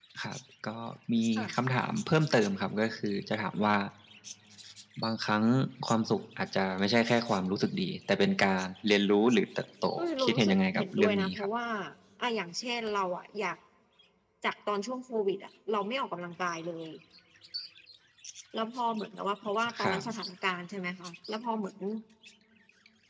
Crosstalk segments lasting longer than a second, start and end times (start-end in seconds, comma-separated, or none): 10.2-11.5